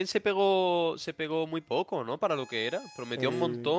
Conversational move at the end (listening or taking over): listening